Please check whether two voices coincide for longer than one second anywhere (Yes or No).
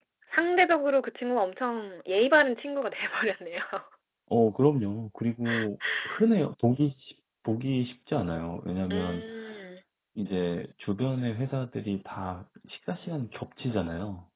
No